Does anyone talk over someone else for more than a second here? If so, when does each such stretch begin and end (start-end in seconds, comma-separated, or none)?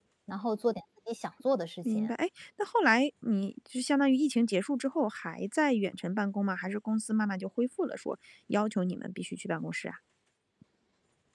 none